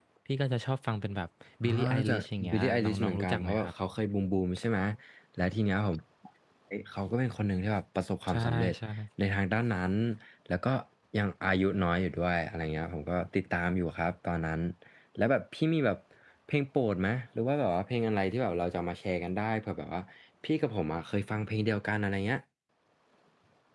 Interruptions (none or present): present